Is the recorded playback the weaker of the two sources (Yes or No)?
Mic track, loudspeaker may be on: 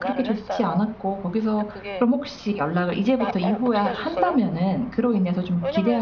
Yes